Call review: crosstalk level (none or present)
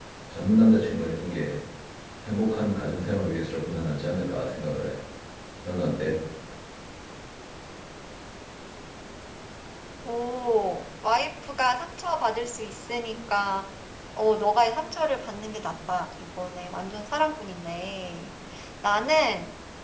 none